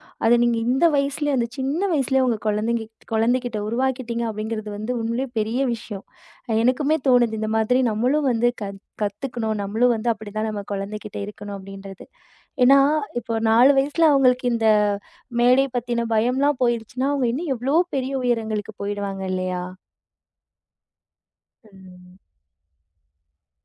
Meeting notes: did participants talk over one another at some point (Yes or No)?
No